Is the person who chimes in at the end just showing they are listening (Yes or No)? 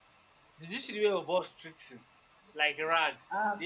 No